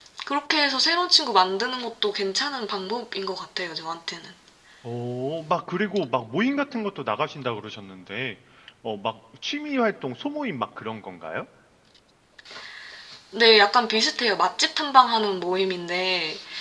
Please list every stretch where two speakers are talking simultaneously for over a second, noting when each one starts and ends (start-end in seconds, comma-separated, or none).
none